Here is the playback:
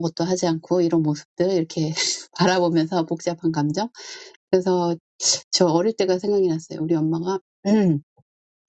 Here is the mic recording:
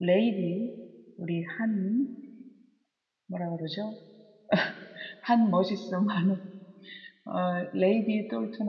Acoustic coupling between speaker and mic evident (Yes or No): No